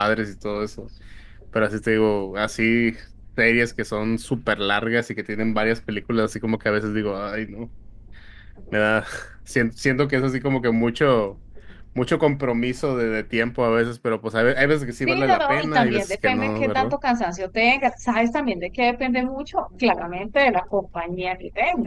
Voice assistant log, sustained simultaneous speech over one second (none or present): present